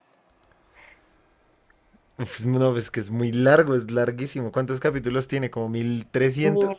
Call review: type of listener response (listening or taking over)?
taking over